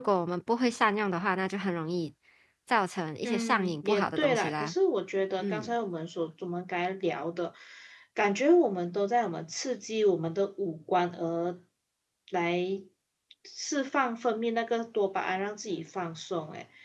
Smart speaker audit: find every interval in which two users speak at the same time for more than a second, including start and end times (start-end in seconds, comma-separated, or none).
3.2-4.7